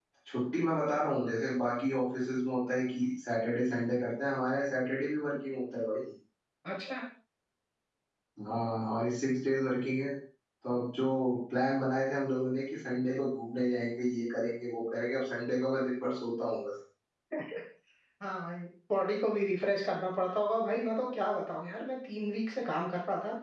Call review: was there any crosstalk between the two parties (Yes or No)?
No